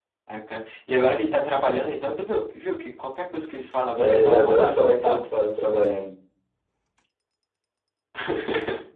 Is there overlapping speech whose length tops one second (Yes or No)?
Yes